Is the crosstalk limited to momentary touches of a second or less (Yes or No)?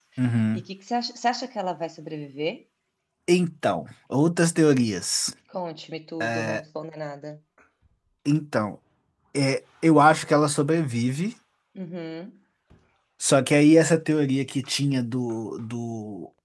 Yes